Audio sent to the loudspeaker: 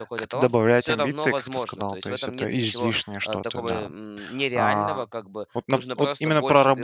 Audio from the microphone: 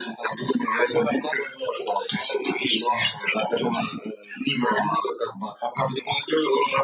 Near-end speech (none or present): none